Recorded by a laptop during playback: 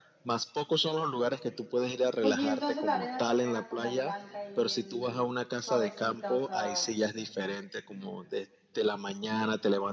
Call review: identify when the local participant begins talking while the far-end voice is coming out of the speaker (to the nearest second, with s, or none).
2 s